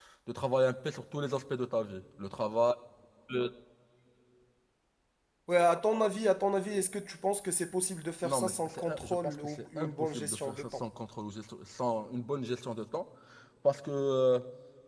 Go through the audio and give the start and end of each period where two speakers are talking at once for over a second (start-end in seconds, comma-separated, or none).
8.2-10.8